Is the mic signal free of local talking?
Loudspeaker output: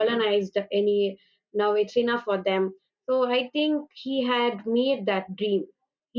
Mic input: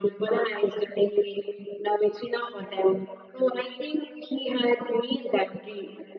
Yes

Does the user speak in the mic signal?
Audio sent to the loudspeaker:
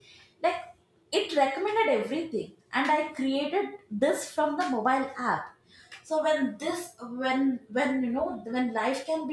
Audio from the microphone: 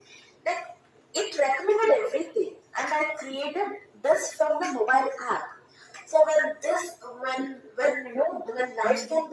Yes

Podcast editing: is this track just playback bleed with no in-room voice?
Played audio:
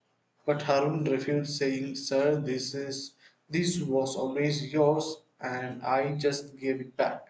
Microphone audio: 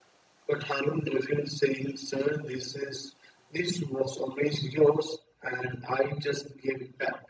Yes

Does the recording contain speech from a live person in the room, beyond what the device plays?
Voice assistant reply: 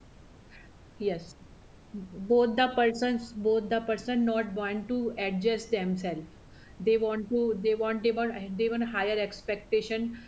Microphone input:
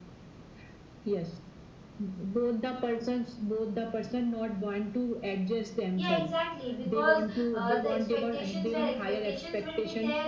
Yes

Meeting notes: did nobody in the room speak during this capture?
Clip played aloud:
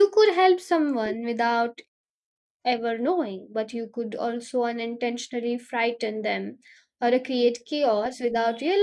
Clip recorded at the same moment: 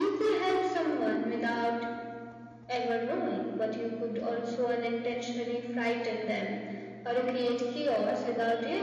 Yes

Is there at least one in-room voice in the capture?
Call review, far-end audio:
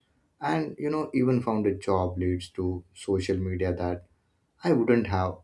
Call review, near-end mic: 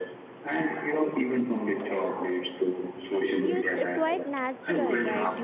Yes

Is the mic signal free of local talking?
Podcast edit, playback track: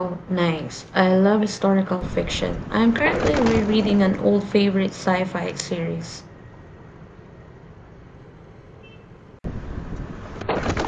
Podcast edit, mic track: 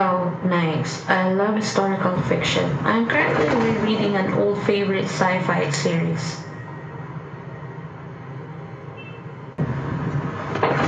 Yes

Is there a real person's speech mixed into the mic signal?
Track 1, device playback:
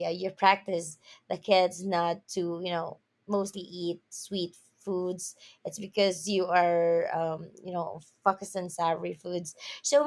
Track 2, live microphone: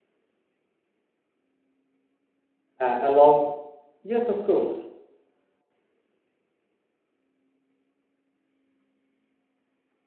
Yes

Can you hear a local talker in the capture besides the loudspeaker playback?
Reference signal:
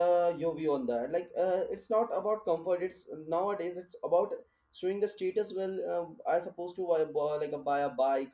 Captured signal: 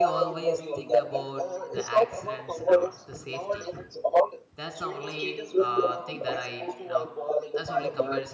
Yes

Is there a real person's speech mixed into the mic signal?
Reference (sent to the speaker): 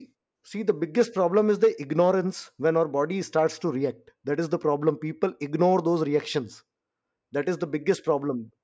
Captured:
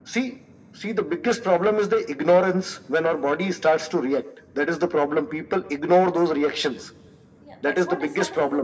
Yes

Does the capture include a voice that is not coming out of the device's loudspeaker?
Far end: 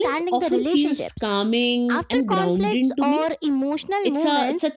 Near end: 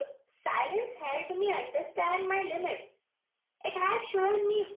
Yes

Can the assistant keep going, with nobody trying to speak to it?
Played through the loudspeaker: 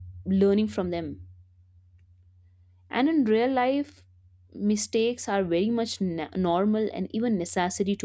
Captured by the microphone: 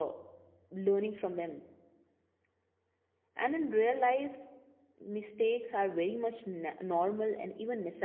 Yes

